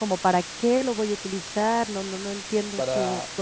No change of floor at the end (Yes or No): Yes